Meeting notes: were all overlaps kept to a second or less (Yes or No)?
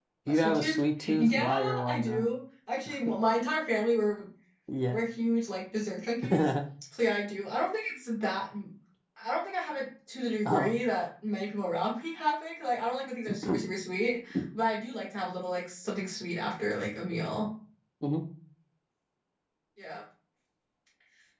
No